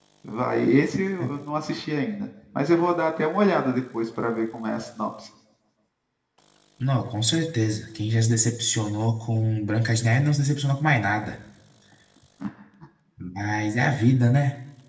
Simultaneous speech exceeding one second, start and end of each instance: none

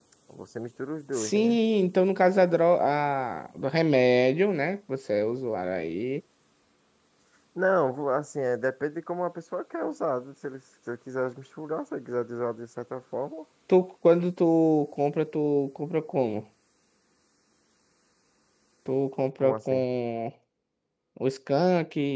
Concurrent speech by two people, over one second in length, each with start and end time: none

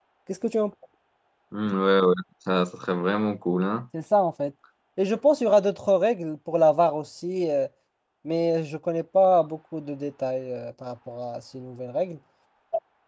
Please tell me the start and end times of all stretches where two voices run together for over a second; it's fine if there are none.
none

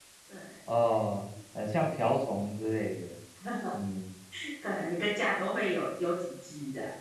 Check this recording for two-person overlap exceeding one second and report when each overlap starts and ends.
none

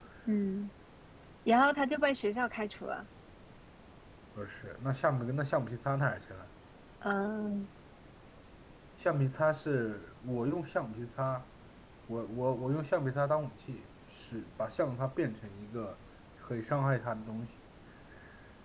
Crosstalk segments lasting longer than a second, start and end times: none

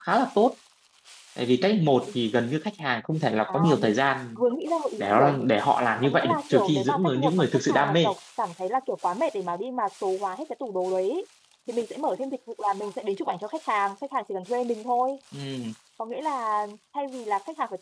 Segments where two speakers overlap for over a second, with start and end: 6.0-8.1

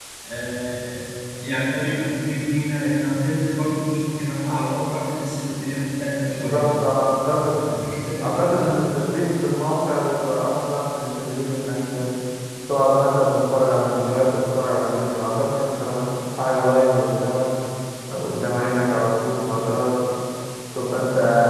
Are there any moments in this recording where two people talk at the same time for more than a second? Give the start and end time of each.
none

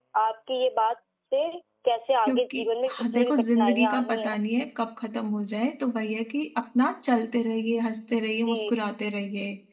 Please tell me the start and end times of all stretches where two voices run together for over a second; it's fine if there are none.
2.3-4.3

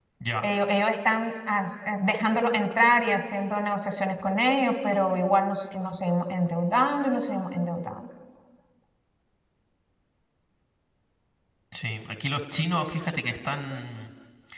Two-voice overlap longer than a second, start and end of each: none

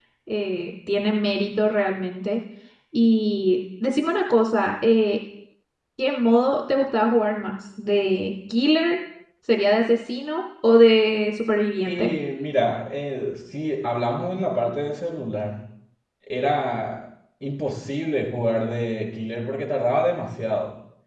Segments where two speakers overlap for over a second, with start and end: none

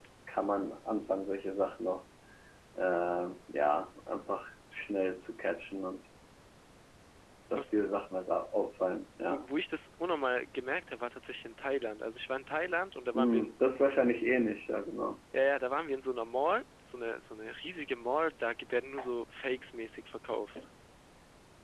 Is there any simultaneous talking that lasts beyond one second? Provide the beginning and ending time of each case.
none

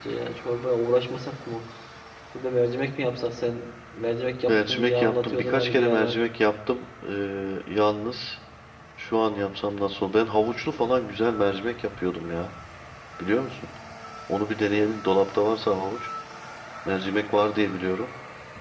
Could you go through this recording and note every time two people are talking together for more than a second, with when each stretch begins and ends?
4.5-6.2

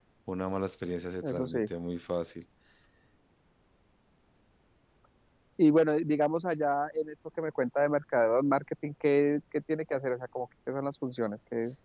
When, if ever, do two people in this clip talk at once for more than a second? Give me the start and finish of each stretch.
none

